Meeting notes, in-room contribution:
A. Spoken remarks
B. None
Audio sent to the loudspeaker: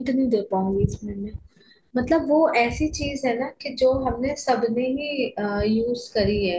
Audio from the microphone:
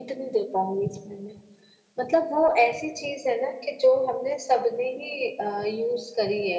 B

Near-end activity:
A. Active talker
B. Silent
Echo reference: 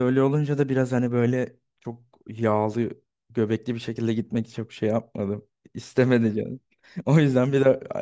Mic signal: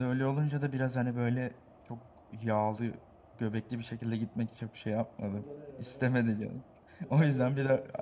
A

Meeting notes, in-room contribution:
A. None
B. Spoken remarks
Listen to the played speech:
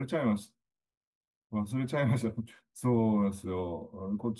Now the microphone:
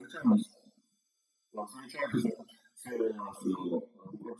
A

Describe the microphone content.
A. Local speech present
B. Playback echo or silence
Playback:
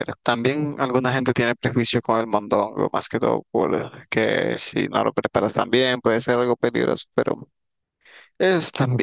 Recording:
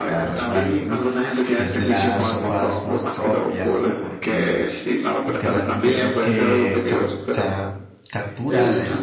A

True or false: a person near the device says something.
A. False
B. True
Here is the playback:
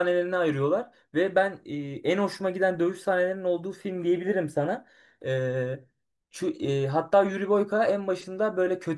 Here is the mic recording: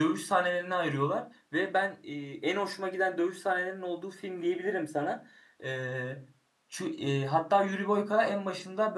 A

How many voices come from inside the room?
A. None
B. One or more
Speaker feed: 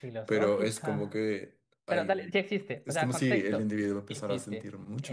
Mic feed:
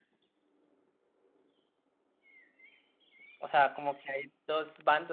B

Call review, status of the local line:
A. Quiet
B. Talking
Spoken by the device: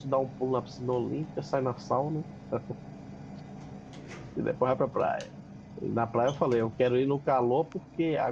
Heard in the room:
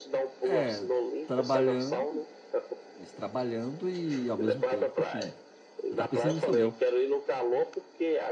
B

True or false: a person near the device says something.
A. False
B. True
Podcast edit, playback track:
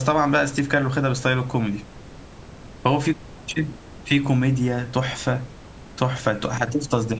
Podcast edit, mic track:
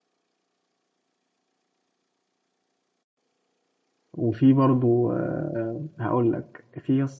B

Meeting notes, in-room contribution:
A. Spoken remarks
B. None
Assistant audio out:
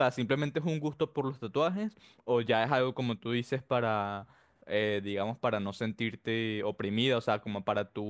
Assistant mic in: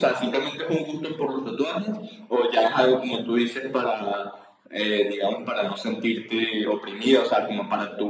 B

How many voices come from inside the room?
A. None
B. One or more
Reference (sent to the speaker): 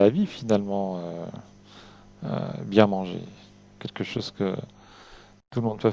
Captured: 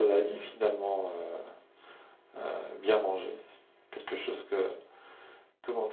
A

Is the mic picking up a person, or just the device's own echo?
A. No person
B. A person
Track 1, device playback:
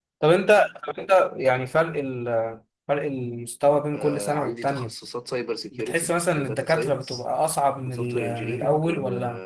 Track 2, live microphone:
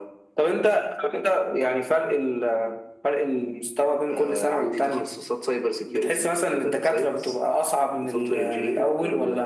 A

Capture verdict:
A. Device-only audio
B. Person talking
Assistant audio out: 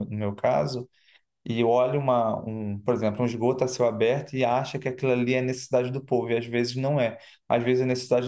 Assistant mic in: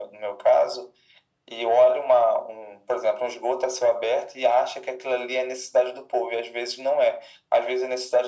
A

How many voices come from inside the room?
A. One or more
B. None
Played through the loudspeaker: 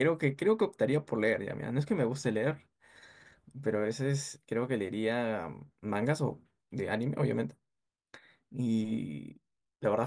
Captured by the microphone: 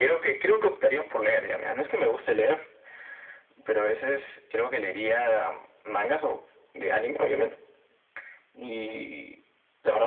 B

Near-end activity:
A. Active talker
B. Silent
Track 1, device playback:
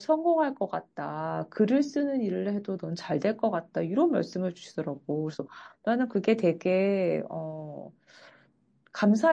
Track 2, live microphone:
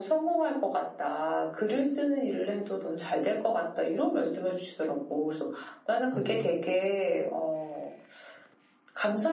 A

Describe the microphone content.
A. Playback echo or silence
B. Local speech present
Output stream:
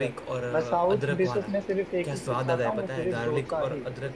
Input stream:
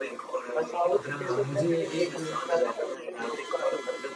B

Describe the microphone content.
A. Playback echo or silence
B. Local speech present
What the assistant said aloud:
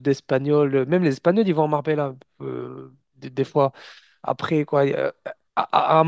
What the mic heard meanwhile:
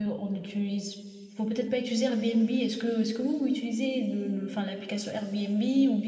B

